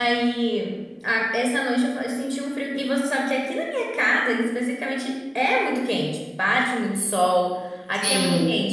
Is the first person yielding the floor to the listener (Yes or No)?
No